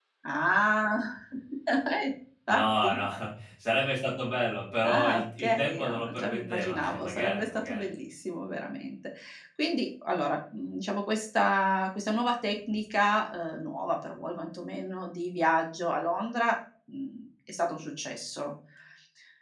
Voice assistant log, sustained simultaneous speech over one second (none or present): present